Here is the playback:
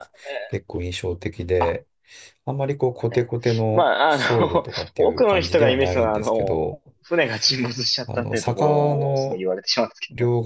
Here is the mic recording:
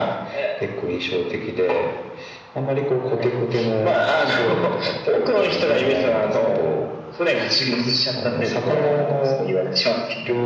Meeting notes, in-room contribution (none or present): none